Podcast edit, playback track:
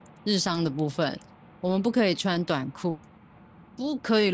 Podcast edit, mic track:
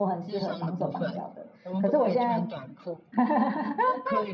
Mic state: both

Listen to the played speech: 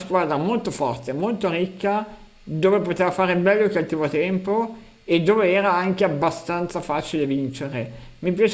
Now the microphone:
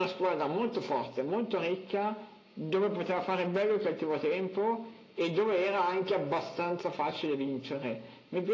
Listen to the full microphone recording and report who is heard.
echo only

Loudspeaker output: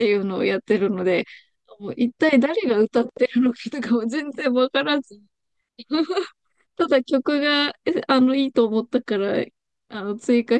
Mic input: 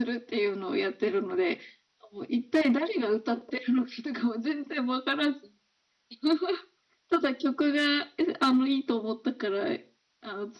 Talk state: echo only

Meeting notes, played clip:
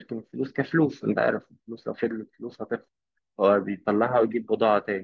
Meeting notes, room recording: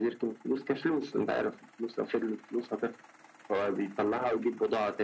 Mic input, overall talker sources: echo only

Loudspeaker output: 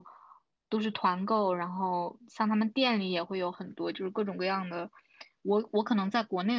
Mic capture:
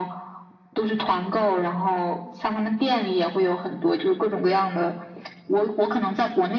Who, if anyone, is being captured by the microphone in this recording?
echo only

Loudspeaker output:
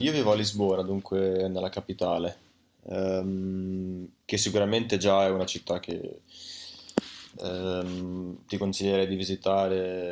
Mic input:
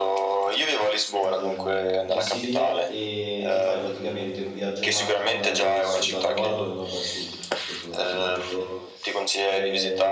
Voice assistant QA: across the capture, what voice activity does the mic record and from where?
both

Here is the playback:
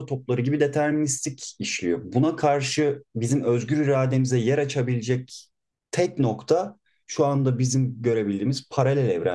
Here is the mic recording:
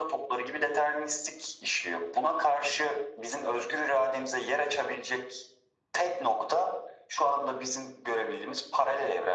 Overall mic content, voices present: echo only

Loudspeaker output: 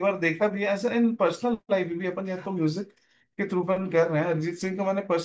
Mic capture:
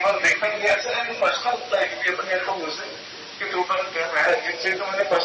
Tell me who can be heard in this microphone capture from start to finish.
echo only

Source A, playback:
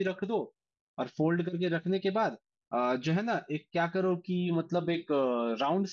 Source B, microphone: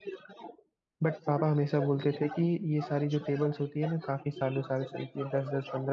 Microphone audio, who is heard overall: both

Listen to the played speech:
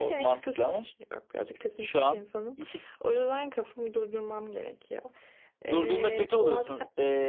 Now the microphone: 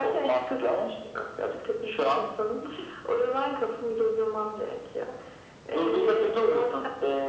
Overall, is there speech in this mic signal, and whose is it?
echo only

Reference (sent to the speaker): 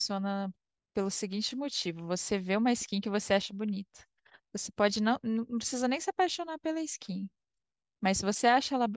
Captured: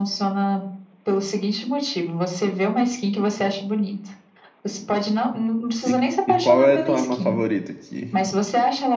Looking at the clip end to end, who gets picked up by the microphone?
both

